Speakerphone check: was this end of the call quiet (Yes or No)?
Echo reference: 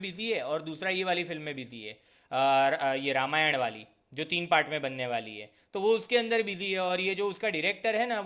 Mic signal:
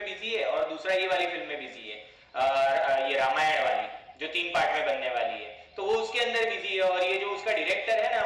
Yes